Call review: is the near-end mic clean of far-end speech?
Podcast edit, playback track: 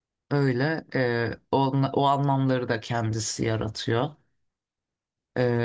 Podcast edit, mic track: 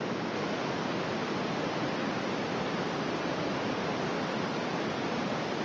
Yes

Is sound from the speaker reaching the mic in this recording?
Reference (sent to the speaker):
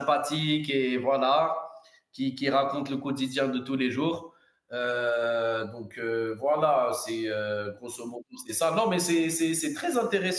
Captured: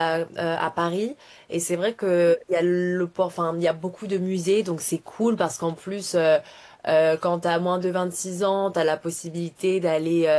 No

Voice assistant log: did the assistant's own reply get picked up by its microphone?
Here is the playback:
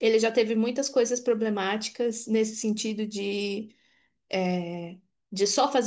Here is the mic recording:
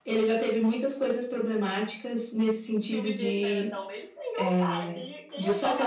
Yes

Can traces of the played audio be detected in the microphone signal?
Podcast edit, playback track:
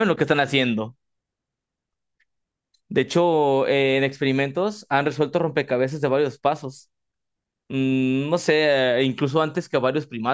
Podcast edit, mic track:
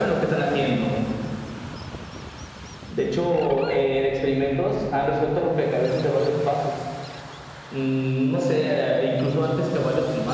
Yes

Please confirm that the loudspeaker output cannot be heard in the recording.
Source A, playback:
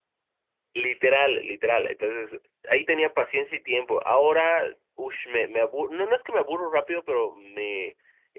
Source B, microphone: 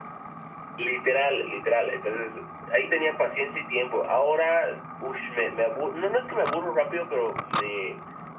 No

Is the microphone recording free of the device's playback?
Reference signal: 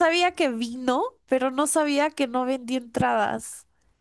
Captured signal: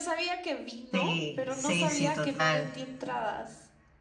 No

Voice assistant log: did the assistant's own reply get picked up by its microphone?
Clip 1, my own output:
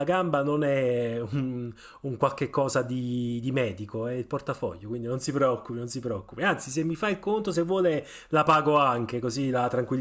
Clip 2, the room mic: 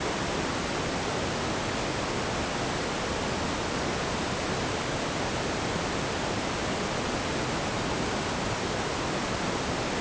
No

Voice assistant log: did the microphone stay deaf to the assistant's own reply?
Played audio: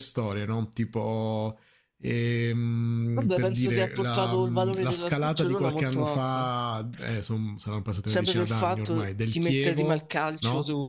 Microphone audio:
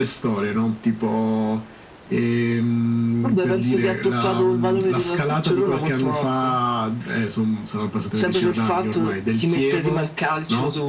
No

